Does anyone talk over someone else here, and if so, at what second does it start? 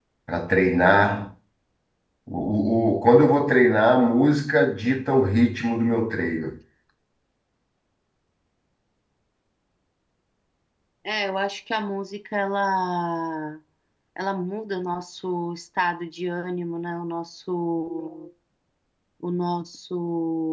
none

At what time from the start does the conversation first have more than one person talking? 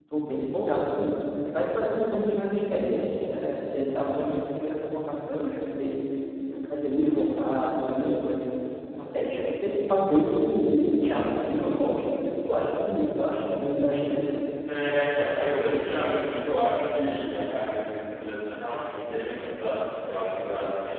none

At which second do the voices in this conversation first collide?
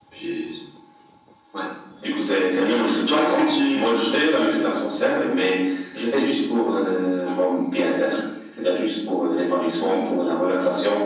3 s

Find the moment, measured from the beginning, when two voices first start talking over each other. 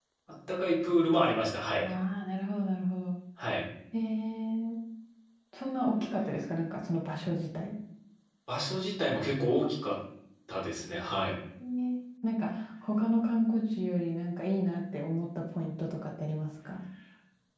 none

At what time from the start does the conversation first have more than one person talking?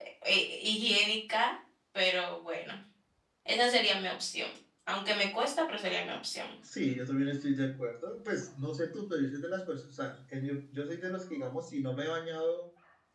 none

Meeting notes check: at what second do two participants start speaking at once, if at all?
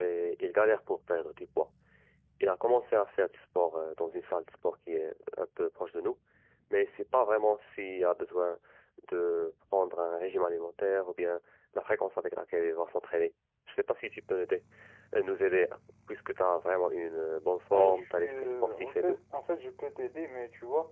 18 s

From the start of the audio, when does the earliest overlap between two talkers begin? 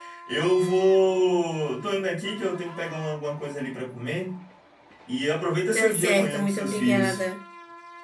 6 s

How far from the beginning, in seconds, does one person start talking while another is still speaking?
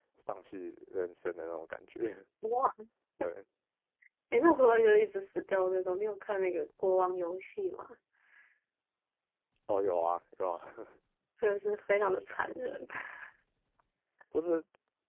none

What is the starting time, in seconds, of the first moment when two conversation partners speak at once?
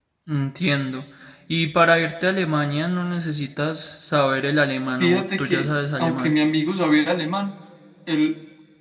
5 s

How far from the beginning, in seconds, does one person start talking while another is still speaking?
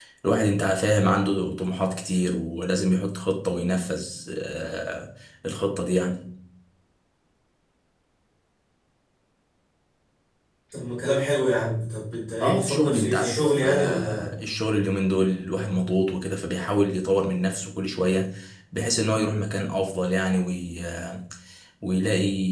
12 s

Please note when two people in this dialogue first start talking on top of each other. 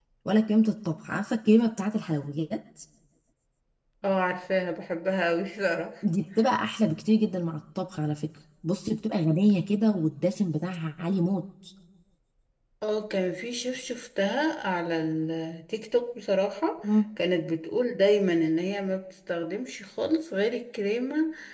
none

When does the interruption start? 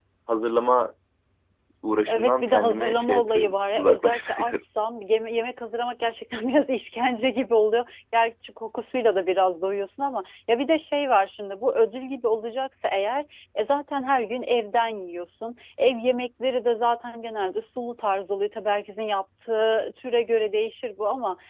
2 s

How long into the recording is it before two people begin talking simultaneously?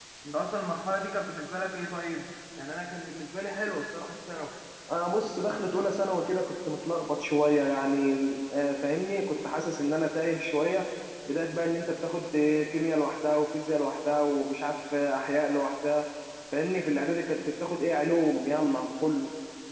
none

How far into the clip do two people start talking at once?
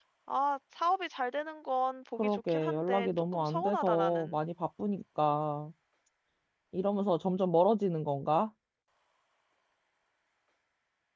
2 s

